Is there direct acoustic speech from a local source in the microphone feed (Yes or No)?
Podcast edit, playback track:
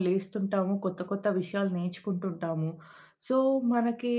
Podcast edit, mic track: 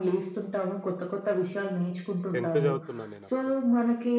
Yes